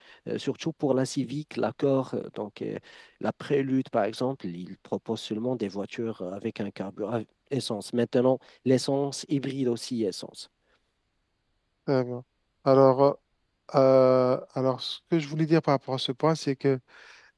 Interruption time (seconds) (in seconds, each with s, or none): none